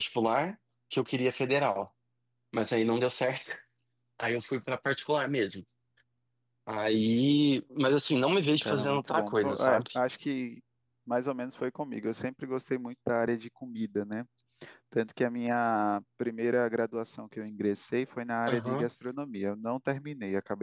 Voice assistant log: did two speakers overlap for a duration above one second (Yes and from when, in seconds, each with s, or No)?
Yes, from 8.6 s